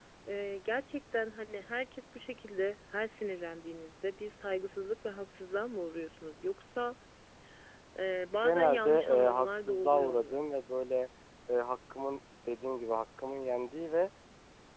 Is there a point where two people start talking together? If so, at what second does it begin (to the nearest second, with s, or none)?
8 s